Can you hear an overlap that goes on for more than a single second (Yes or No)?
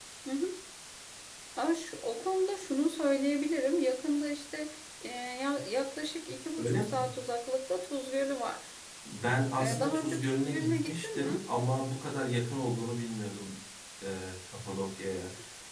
Yes